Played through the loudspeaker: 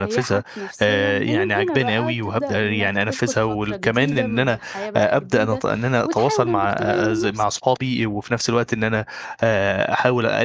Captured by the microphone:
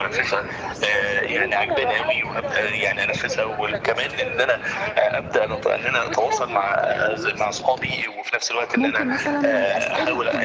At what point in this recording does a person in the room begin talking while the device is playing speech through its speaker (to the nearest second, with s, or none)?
9 s